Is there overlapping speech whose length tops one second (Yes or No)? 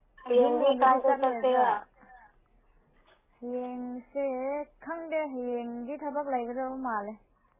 Yes